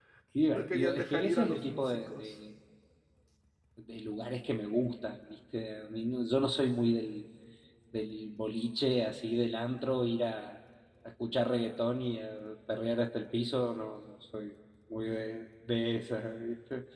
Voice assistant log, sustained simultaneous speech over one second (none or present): present